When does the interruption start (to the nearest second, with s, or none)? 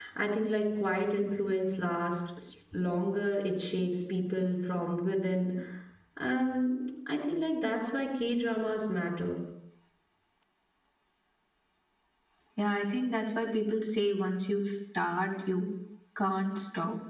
none